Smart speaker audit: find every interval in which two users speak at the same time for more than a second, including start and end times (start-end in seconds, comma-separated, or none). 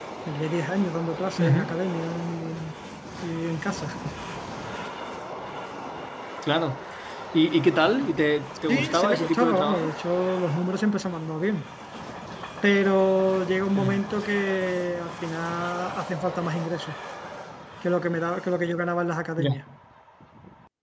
8.7-9.9